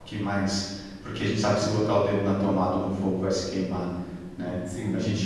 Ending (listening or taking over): listening